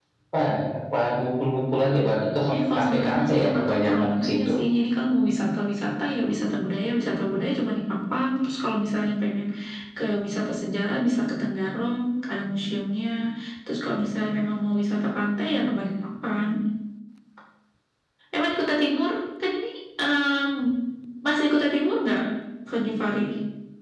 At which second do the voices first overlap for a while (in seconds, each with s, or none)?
2.8 s